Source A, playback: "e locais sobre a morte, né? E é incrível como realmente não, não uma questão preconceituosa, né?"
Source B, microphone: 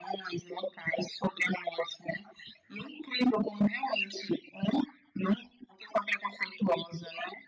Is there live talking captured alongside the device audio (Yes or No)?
No